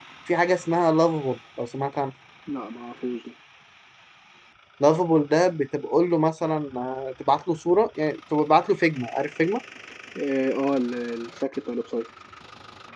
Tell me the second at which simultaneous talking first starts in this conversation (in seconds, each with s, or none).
none